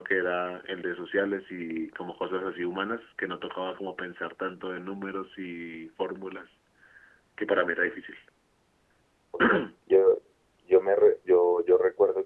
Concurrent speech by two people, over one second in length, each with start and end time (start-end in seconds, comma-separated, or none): none